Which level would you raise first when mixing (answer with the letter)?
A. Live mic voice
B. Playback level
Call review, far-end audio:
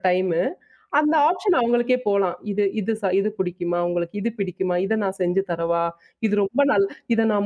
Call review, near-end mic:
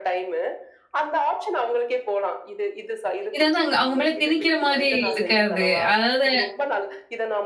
B